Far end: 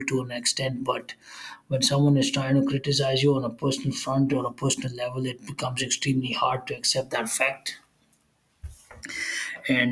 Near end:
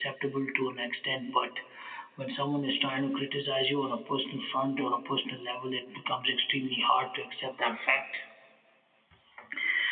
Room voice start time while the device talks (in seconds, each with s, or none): none